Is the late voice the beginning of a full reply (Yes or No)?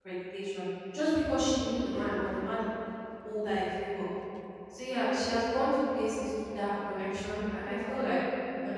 No